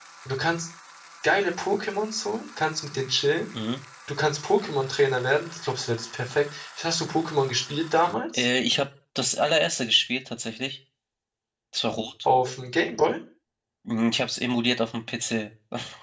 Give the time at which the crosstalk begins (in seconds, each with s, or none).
none